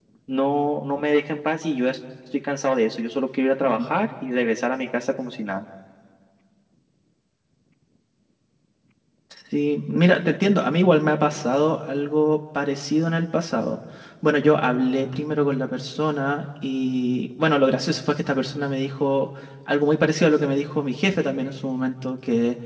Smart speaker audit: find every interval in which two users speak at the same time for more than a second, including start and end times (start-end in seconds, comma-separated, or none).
none